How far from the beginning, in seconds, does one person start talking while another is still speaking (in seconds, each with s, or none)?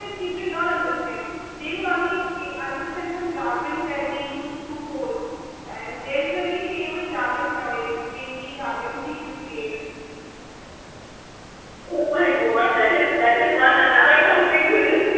13.9 s